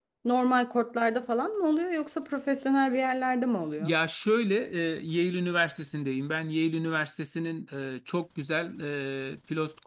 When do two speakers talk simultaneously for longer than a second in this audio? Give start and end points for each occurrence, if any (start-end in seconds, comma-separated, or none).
none